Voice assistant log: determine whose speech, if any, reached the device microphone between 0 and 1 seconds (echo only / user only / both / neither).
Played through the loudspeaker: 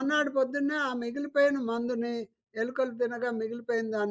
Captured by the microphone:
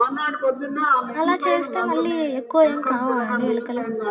echo only